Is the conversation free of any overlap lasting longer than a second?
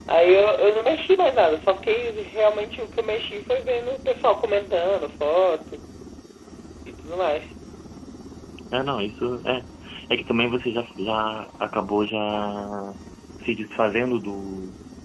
Yes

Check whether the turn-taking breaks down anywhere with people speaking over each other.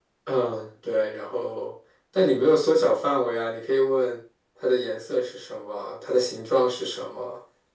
No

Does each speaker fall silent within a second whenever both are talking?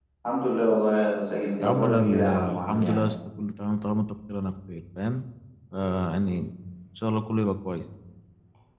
No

